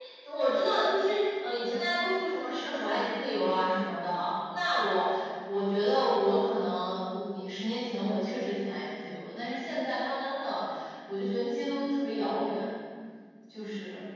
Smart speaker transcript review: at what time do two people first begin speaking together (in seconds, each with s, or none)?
none